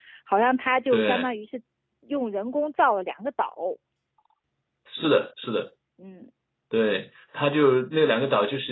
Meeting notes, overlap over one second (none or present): none